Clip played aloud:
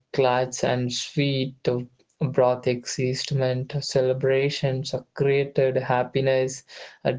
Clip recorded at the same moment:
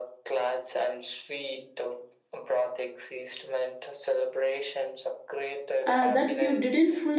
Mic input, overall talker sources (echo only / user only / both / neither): both